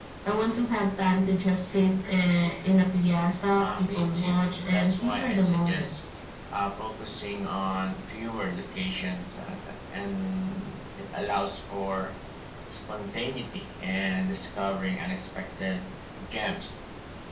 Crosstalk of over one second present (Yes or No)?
Yes